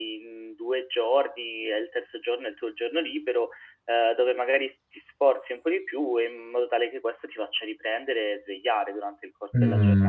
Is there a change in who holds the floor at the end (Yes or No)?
Yes